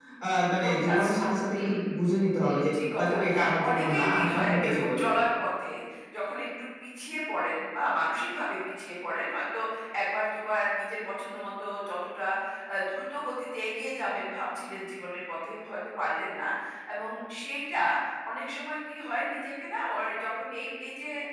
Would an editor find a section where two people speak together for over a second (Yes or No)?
Yes